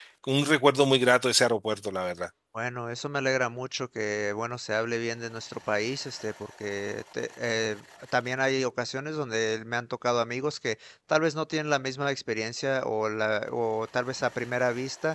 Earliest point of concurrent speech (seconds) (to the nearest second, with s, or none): none